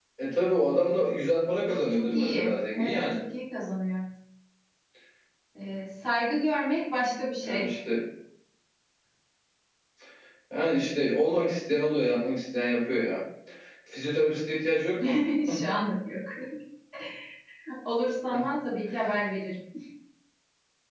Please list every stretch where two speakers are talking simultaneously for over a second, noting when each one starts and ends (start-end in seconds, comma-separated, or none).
1.9-3.2